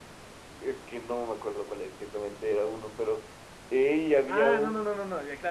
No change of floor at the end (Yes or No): No